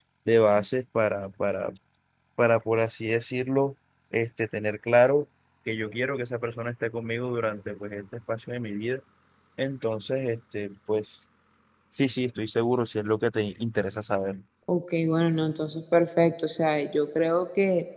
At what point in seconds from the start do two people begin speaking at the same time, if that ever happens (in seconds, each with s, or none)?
none